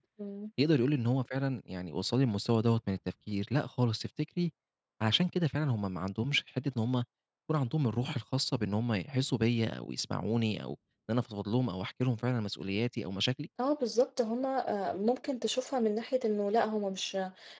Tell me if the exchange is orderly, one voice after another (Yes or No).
Yes